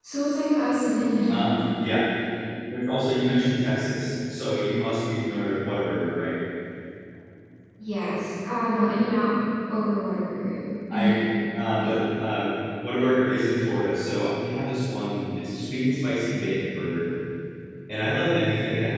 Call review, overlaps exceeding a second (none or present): none